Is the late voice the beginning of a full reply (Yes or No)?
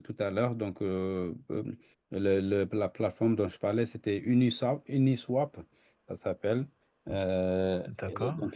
Yes